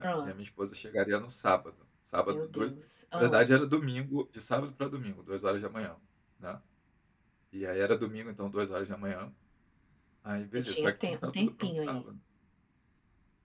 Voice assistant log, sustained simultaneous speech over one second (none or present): present